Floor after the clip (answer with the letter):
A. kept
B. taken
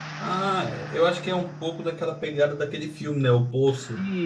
B